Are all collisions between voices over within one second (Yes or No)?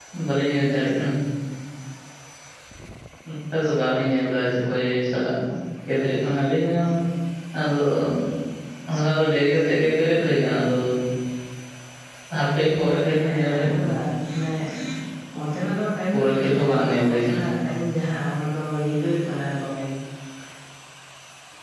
No